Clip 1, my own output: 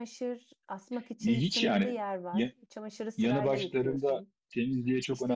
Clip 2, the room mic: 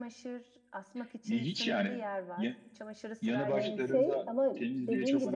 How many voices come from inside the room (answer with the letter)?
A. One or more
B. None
A